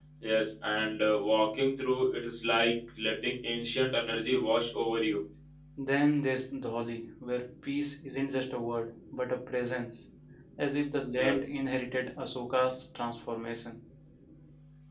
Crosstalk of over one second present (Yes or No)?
No